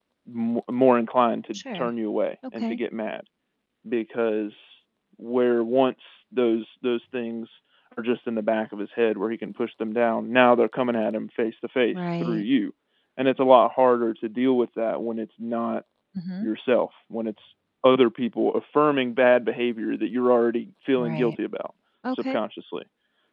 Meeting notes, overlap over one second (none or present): none